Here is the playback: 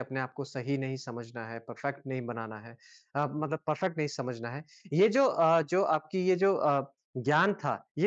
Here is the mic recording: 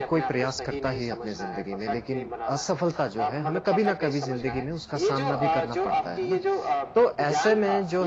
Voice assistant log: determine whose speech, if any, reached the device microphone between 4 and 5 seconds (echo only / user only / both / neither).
both